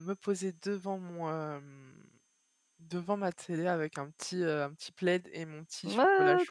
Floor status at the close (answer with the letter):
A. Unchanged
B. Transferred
B